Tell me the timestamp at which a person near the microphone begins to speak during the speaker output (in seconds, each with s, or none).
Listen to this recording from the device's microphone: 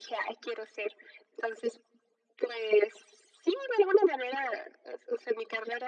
none